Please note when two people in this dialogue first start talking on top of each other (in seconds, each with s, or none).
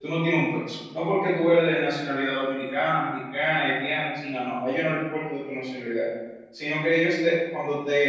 none